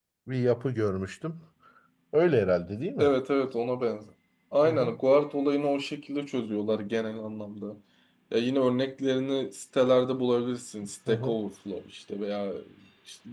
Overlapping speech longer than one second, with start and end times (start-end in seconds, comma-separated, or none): none